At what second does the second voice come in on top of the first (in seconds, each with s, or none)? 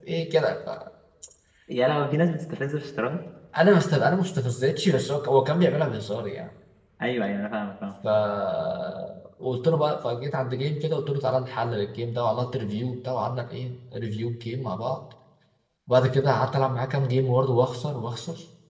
none